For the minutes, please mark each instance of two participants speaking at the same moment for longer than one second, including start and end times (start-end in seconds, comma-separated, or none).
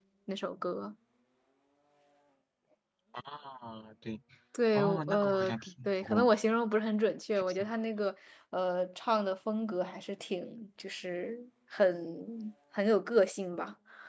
4.7-6.3